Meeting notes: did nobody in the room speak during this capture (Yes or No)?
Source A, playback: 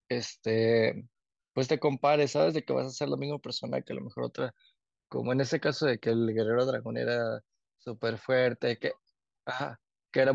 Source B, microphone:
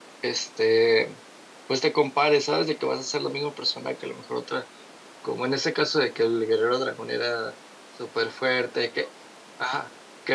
Yes